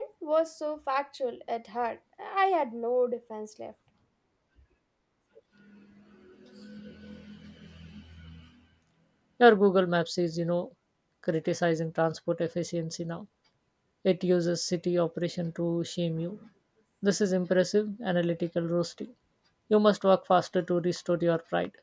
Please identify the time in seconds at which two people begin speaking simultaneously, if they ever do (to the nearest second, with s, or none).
none